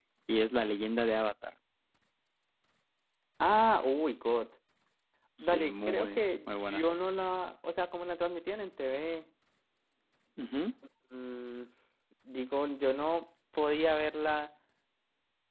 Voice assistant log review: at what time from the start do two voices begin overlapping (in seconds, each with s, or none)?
5.4 s